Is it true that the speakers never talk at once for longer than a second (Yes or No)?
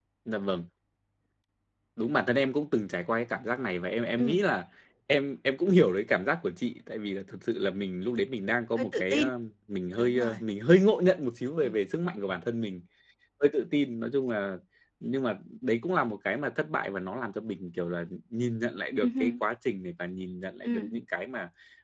Yes